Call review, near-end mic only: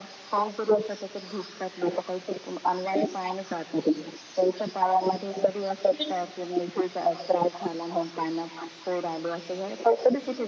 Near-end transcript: none

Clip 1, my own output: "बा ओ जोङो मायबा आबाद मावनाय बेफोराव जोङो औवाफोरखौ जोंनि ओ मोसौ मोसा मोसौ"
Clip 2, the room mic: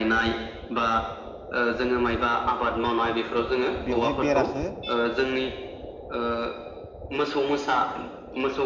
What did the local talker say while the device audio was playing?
बेवहाय बेराखो

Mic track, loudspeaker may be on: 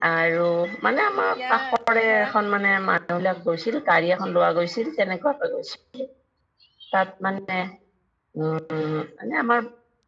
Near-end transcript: এতিয়া ধৰা

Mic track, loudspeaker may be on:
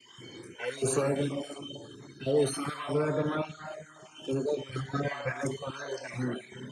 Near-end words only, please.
none

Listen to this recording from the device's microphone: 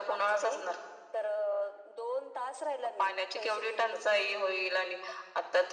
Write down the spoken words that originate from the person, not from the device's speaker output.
none

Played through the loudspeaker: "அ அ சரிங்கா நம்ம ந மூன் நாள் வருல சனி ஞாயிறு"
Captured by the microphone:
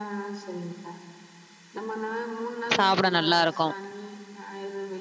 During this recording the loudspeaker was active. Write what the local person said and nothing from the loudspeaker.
சாப்பிட நல்லாருக்கும்.

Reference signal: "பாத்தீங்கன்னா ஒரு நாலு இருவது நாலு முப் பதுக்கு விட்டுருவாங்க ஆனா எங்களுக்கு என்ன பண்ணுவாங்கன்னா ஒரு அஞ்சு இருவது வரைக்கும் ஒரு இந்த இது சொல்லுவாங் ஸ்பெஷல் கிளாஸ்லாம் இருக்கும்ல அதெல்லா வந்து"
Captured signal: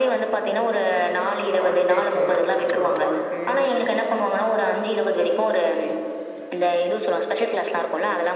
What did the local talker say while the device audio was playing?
வாழ்கைக்கு என்னோட வாழ்கைய

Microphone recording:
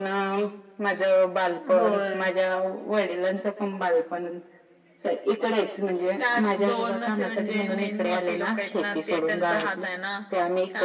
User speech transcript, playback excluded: होय

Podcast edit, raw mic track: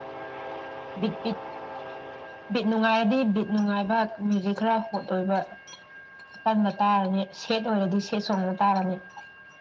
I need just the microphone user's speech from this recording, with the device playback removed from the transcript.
none

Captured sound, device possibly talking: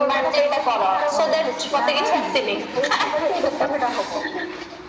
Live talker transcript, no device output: ଓହୋ ଗାଁ କୋଉଠି କି?

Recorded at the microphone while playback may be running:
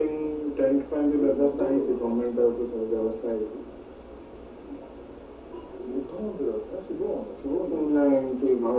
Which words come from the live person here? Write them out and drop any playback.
none

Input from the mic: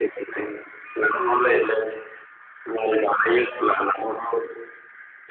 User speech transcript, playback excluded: औ नोंथां

